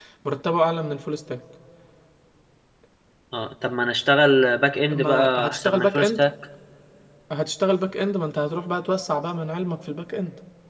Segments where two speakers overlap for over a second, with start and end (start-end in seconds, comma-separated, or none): 4.9-6.2